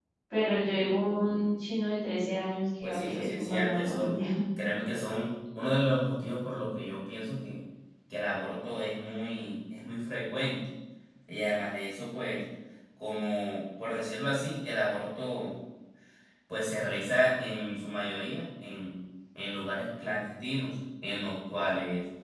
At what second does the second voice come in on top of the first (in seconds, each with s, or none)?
2.8 s